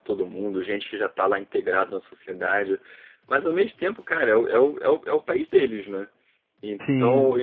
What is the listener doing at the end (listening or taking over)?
listening